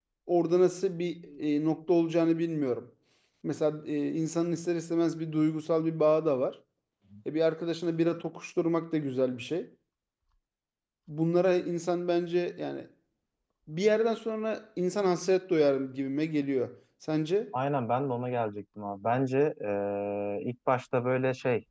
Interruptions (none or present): none